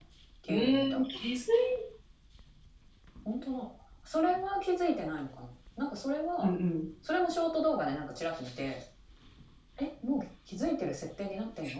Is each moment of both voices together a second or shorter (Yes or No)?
Yes